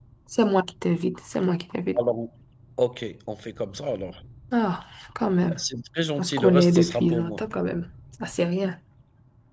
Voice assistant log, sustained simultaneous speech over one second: present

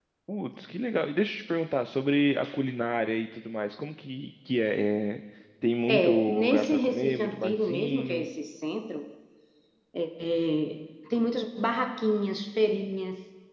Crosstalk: present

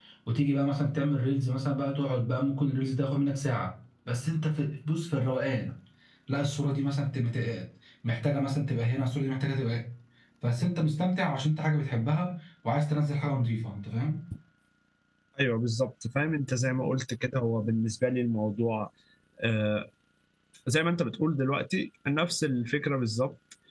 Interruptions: none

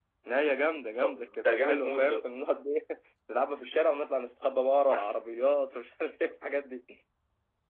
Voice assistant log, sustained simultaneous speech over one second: present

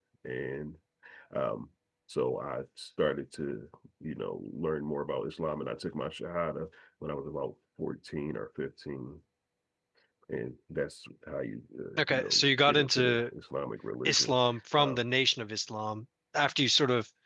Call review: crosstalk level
present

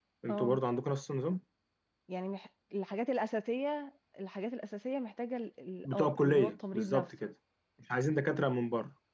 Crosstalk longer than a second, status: present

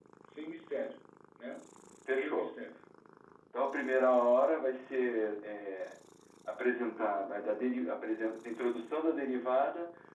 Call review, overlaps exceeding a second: none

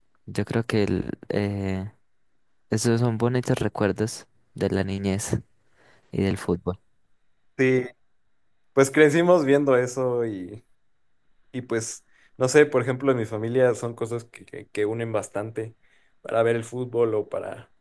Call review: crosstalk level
none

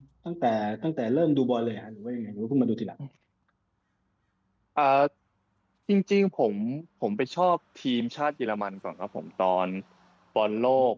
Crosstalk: none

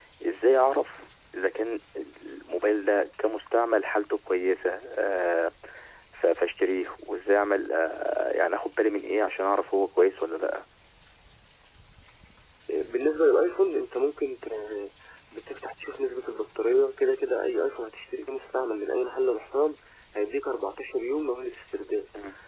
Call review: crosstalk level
none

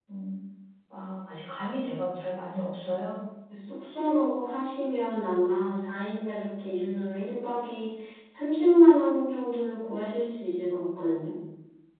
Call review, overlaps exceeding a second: none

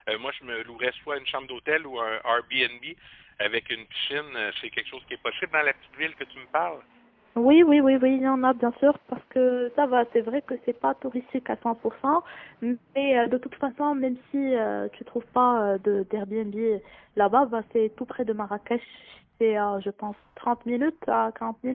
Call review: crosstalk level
none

